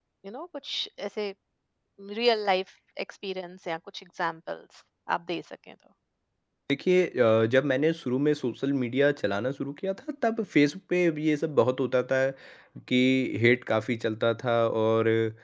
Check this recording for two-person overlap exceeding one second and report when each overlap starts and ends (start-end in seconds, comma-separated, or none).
none